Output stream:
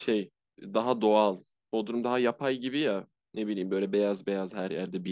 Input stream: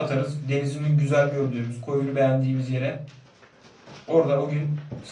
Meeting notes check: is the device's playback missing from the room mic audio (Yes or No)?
Yes